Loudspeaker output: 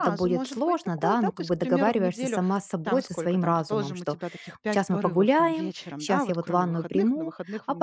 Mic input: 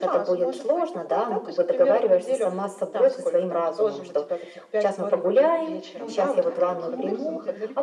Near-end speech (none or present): present